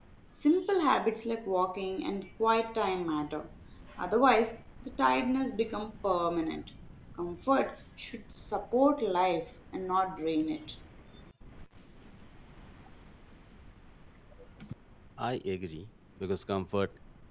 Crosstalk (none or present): none